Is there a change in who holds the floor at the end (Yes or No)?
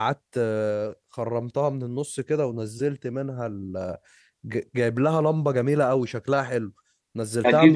Yes